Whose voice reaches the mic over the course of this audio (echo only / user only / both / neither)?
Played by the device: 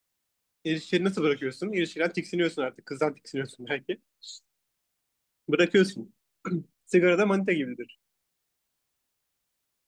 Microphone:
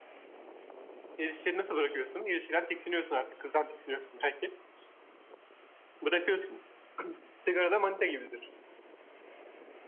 echo only